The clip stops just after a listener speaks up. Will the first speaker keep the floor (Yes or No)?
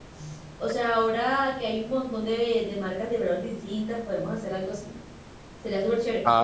Yes